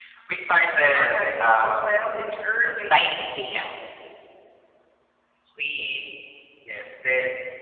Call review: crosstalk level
present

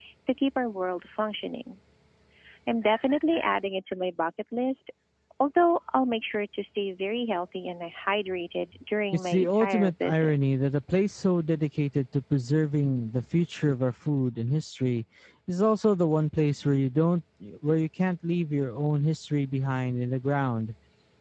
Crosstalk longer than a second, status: present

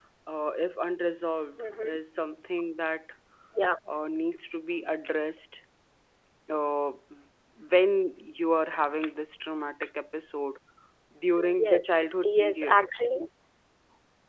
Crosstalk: present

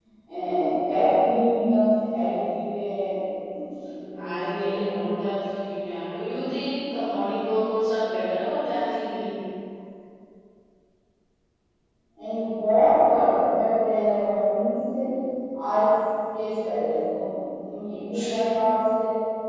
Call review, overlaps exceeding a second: none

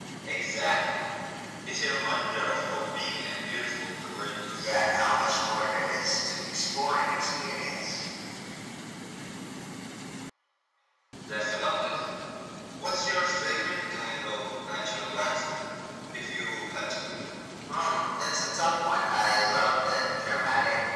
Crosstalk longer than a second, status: none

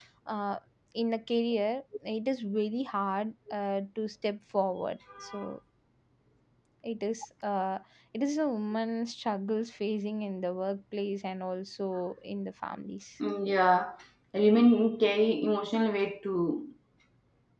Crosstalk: none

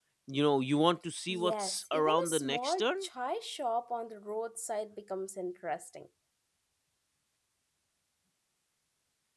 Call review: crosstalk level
present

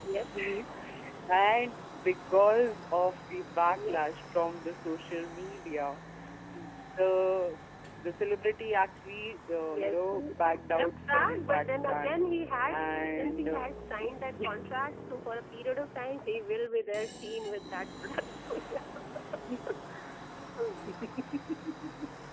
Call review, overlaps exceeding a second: present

